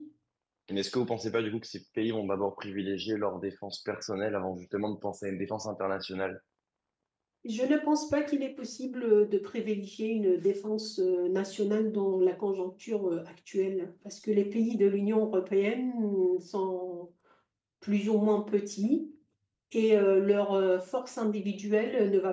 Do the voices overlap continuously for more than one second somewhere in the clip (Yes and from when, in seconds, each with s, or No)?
No